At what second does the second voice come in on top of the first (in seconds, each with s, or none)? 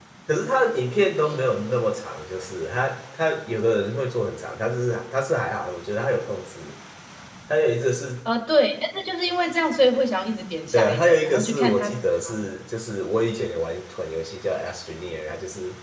10.7 s